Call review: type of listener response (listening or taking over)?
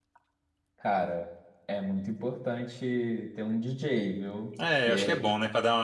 taking over